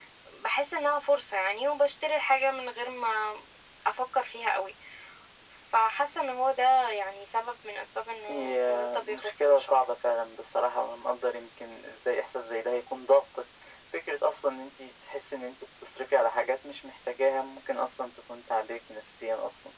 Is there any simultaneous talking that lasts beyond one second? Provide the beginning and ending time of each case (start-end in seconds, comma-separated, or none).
8.3-9.7